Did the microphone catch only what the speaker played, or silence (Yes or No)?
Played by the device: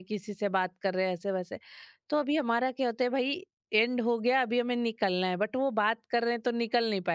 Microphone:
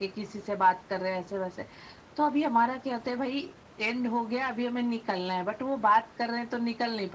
Yes